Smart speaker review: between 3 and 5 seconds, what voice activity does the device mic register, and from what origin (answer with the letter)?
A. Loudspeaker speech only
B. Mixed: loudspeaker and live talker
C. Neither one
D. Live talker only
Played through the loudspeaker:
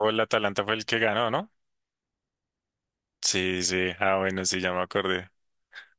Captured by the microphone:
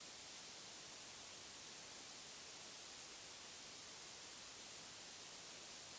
C